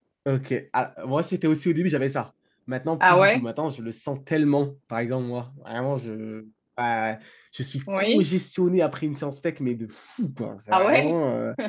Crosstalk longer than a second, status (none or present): none